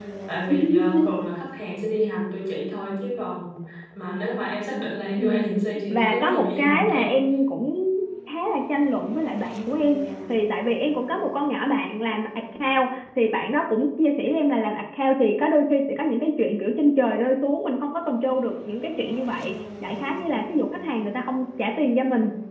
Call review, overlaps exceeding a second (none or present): present